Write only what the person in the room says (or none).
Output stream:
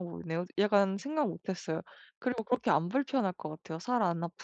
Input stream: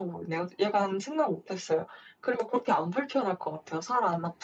none